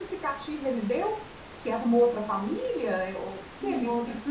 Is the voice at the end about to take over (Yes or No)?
Yes